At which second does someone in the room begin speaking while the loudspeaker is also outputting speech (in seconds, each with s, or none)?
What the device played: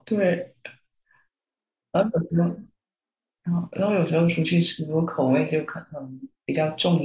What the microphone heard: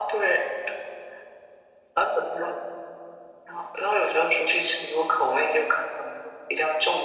none